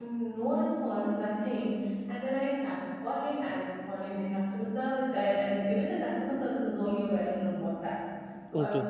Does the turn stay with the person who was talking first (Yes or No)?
Yes